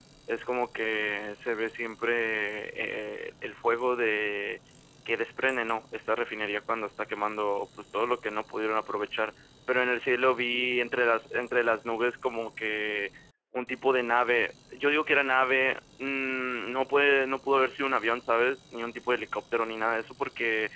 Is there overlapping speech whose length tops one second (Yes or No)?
No